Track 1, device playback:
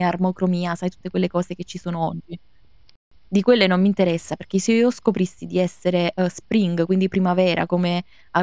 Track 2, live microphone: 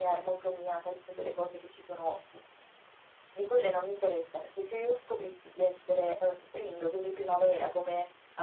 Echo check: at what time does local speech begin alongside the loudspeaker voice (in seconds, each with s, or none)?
none